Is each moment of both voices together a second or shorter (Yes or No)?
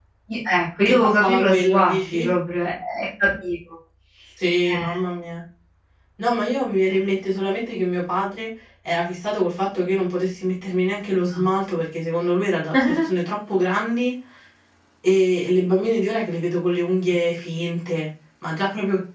No